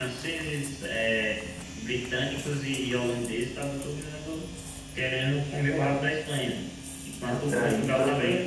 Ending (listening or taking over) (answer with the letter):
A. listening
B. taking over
B